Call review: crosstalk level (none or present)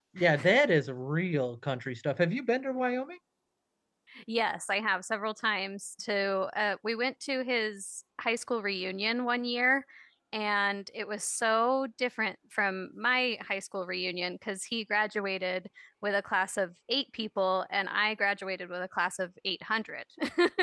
none